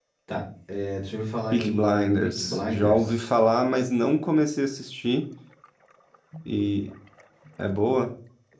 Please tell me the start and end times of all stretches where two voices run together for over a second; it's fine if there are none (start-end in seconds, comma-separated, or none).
1.5-3.1